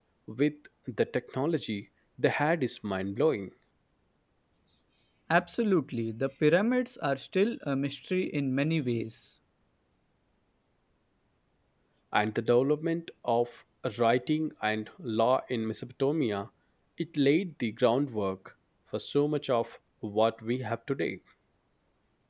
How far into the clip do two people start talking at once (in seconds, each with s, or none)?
none